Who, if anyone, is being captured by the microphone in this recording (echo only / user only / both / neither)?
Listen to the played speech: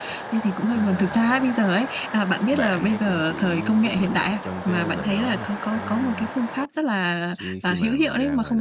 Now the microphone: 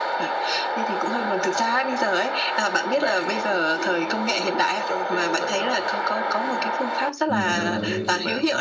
both